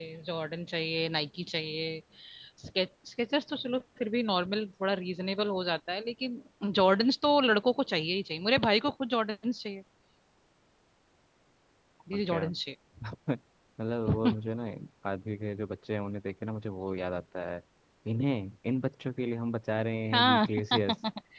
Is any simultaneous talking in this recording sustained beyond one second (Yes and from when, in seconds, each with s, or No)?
No